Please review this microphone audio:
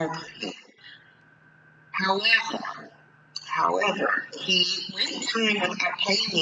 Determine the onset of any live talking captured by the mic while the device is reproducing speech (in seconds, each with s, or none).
none